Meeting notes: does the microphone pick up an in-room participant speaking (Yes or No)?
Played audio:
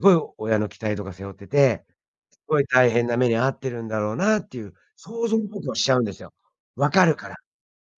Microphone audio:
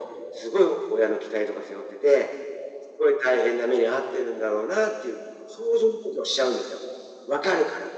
No